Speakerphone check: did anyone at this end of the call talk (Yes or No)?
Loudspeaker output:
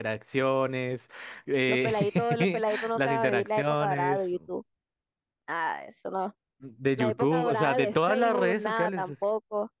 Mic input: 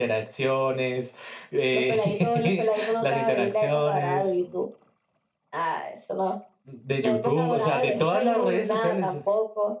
No